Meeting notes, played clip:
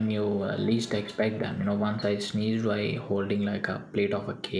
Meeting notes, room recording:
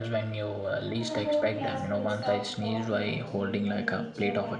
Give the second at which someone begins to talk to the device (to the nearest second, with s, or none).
1 s